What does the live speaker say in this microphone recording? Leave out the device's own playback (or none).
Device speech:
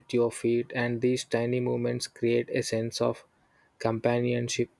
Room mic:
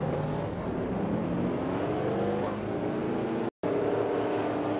none